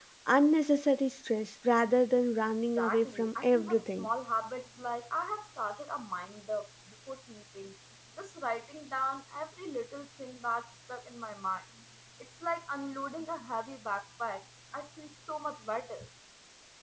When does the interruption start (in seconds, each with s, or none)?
2.8 s